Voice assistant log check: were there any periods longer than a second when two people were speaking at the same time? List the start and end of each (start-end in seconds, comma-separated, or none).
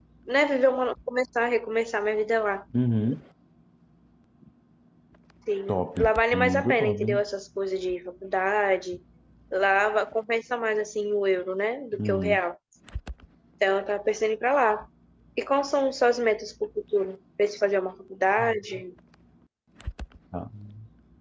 5.7-7.2